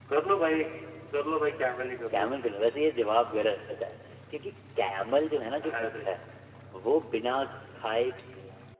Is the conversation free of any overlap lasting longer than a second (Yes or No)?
Yes